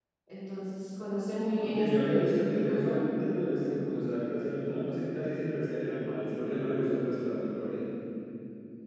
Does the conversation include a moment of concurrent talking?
Yes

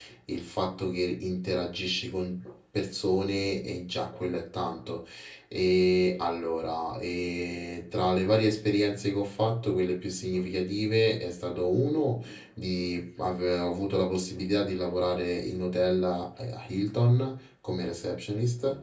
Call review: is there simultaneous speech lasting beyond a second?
No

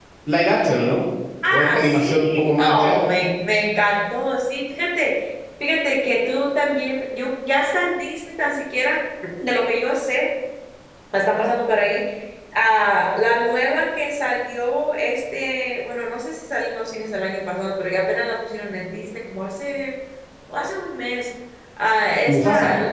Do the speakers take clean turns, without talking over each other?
No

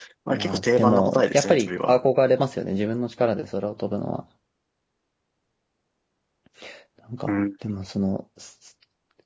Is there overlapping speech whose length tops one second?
Yes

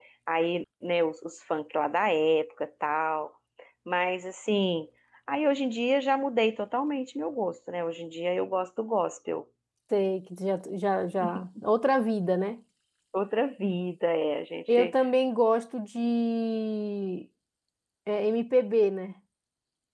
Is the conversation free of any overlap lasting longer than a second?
Yes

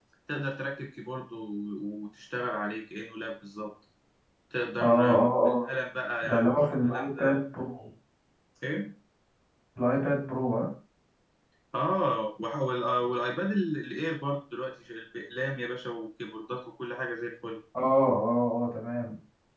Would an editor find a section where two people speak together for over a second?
Yes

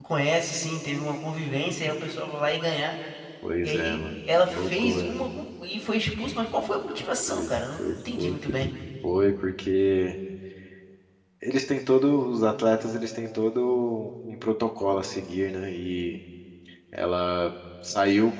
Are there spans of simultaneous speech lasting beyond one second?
Yes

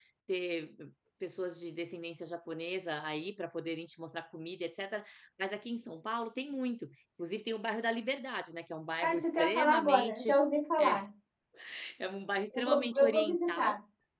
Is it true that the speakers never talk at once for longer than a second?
No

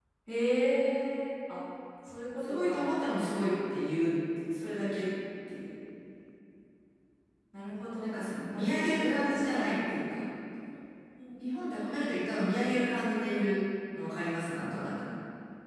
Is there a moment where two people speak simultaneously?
Yes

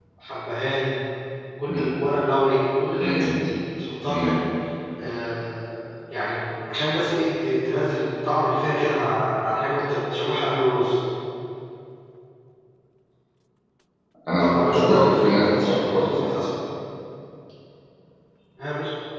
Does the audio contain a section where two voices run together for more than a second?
Yes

